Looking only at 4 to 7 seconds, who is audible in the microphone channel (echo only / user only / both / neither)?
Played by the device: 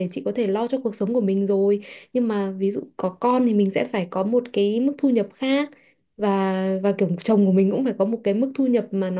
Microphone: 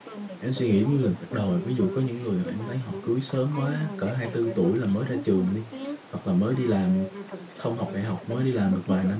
both